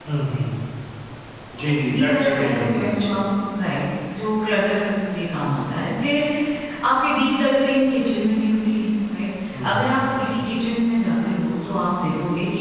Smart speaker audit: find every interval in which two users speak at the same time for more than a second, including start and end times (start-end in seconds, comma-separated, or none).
1.6-3.0